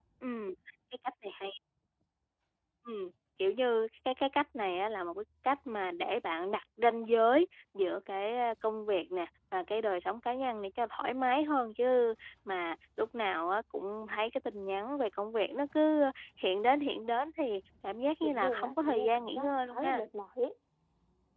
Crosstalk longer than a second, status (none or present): present